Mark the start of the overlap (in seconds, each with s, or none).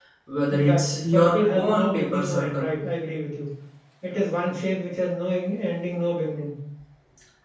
0.5 s